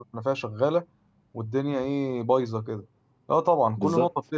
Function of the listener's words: listening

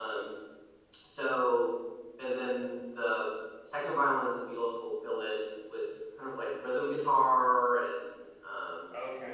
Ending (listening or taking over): taking over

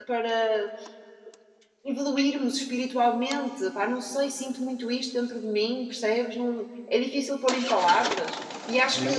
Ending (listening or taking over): taking over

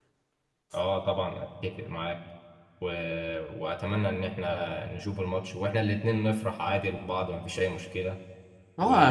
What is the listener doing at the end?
taking over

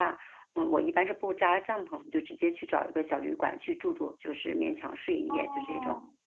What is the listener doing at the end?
taking over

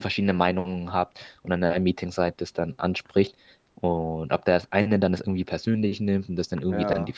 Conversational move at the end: listening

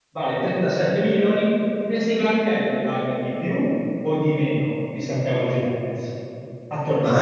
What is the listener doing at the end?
taking over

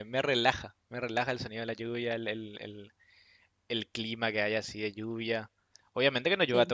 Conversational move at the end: listening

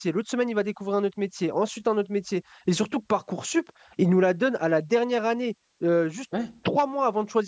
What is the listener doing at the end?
listening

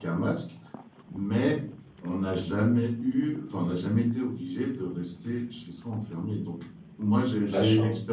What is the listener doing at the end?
listening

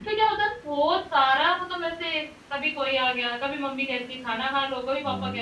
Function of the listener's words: listening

